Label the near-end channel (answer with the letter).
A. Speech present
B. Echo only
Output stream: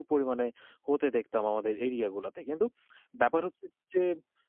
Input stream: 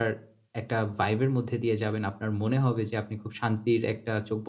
A